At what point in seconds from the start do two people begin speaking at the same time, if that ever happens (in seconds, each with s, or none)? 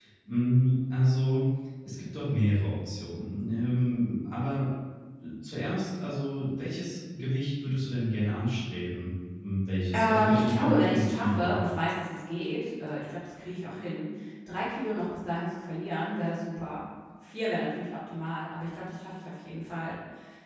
9.9 s